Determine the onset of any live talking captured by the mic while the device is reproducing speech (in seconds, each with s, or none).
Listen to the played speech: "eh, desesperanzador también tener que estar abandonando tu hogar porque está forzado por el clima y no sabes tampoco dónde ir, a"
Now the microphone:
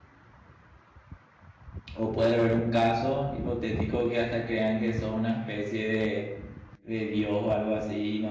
1.9 s